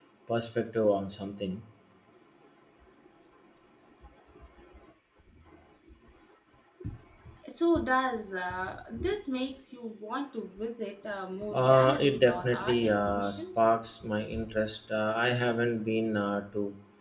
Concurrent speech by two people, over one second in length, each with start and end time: 11.5-13.7

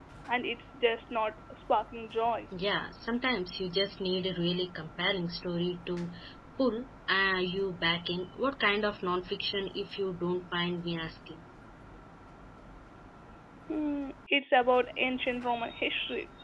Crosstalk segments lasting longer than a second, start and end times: none

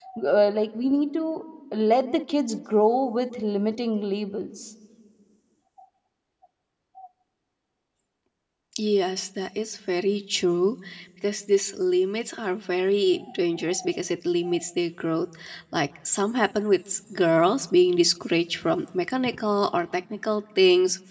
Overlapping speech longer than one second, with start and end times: none

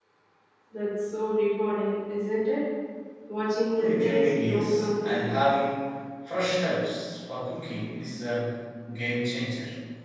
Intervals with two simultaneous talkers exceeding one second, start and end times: 3.8-5.3

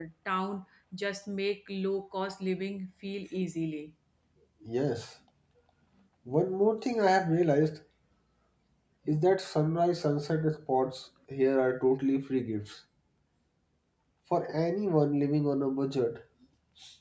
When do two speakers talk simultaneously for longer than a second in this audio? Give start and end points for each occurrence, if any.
none

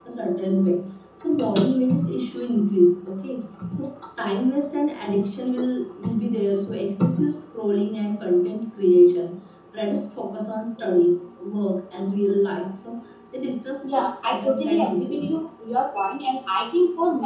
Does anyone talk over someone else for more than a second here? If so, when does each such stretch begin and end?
13.8-15.6

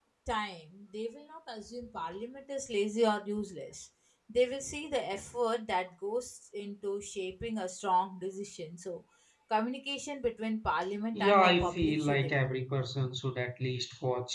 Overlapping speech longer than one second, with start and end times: 11.1-12.4

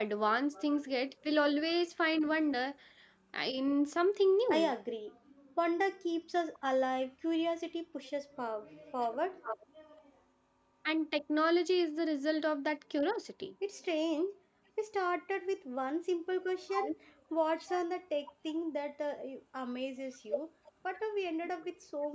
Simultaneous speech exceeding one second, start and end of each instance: none

